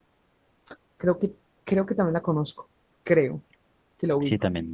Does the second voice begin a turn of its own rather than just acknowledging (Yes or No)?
Yes